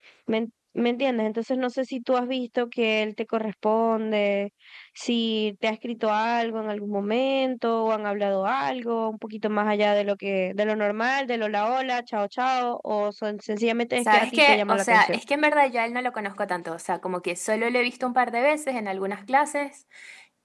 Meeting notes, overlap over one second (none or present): present